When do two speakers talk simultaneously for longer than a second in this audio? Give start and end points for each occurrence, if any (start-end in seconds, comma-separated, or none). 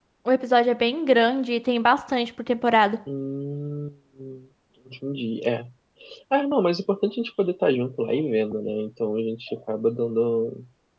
none